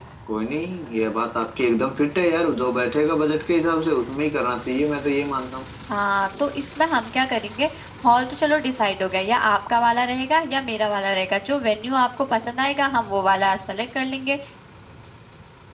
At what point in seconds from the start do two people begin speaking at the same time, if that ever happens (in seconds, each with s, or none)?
none